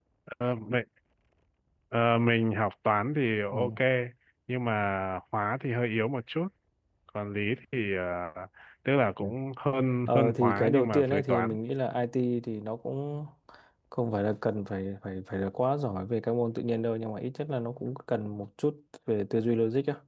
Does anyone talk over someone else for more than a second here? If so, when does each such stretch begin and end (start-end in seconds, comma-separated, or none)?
10.1-11.6